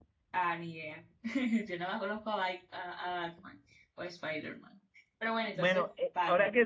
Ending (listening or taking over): taking over